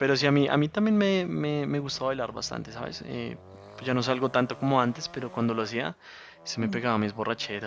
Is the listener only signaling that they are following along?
Yes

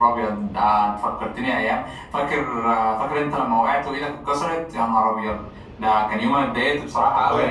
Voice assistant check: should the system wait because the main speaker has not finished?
Yes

